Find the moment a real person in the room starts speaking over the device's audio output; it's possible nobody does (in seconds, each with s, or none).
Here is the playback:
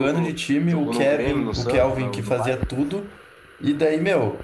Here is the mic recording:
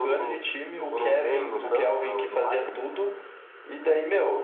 none